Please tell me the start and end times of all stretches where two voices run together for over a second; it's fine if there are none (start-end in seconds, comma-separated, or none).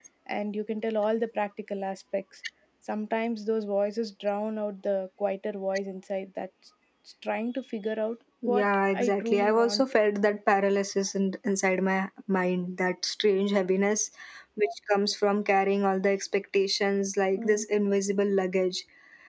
8.5-9.8